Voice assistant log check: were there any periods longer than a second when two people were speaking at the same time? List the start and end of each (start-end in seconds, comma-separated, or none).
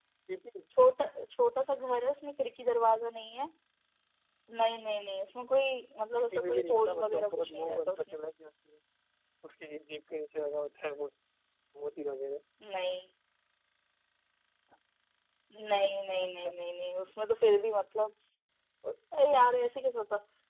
6.2-8.2